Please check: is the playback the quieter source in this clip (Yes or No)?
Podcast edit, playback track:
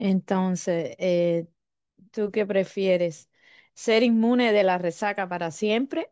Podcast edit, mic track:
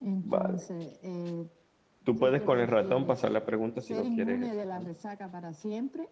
Yes